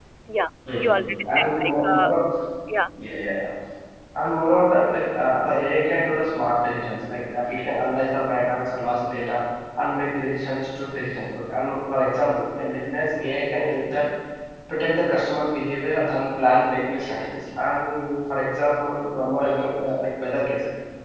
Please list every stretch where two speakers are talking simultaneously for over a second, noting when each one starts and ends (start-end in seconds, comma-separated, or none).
0.8-2.1